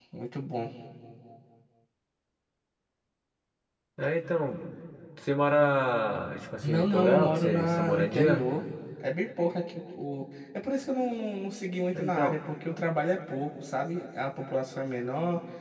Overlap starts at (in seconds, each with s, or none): 6.6 s